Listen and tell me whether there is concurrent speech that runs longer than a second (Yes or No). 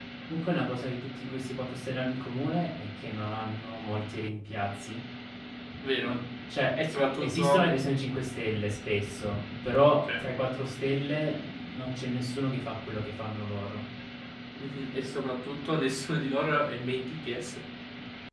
No